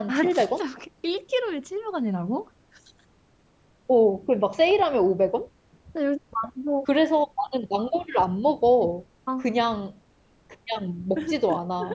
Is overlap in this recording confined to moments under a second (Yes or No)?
Yes